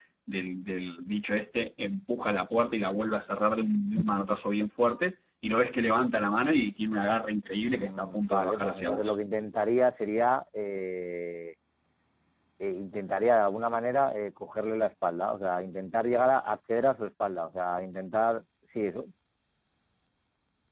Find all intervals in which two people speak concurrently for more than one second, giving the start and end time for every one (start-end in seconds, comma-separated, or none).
7.6-9.1